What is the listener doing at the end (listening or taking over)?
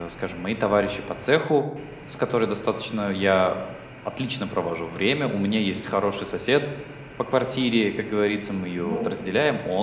listening